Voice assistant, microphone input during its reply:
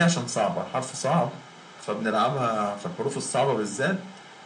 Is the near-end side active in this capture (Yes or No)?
No